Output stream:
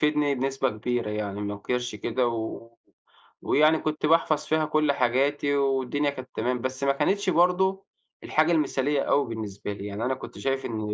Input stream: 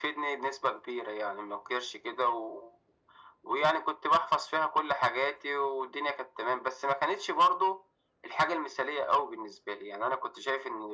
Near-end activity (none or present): none